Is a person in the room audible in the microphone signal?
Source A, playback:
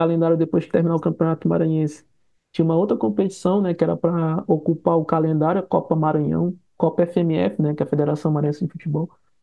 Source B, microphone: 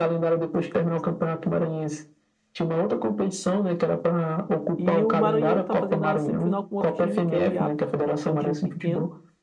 Yes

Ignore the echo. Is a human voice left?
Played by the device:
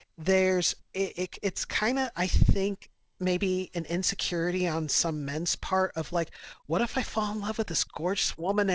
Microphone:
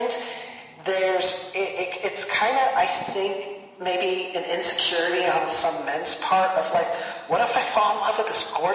No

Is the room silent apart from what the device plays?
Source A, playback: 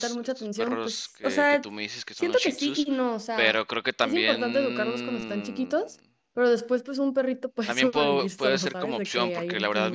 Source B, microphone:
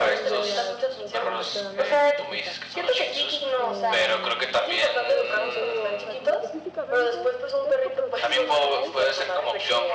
No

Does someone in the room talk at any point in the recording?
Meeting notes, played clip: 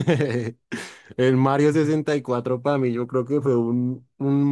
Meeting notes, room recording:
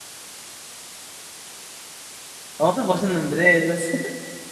Yes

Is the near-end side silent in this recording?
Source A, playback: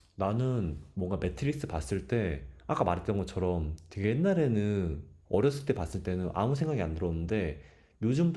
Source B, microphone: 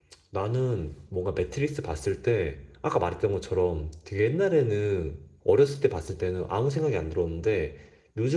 Yes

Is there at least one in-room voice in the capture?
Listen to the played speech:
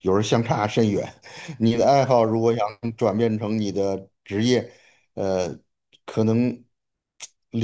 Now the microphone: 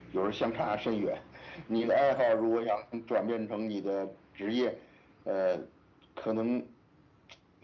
No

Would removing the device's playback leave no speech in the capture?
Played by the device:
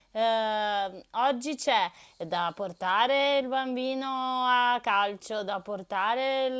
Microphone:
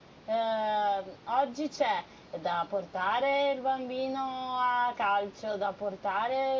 Yes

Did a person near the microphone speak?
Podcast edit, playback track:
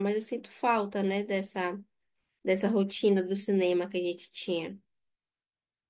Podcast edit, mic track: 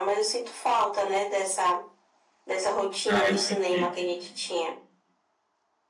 Yes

